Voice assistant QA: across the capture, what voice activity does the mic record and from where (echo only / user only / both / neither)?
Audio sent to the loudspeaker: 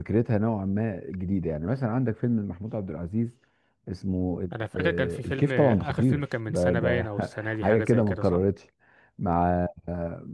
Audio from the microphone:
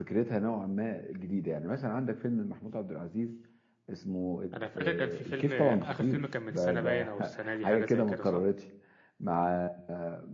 echo only